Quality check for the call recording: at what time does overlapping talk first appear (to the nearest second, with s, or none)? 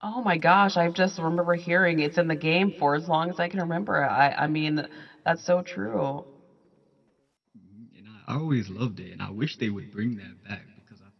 none